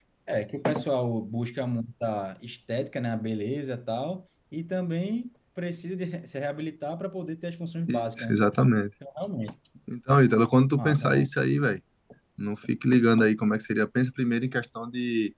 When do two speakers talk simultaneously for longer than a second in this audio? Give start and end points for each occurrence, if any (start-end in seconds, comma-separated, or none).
none